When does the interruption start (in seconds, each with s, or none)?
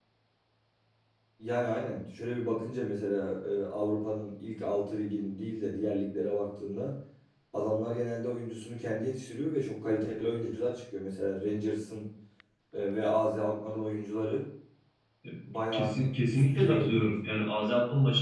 15.7 s